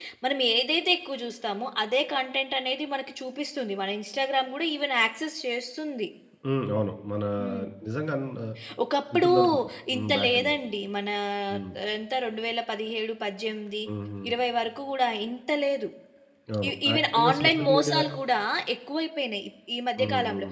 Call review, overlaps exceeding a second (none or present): present